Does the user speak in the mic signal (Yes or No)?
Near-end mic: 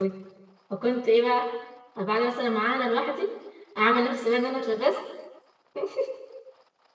Yes